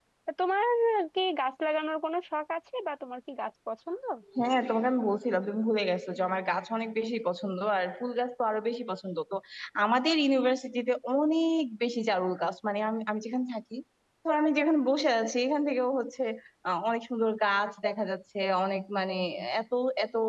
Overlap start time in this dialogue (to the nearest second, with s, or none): none